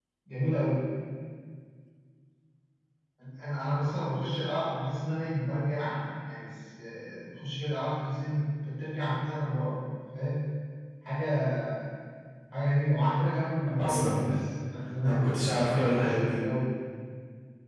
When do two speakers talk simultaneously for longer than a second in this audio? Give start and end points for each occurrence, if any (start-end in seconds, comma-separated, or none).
15.0-16.4